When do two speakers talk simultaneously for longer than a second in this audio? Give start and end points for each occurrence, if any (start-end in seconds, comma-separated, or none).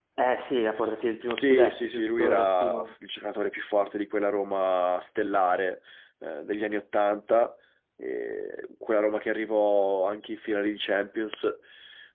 1.3-2.9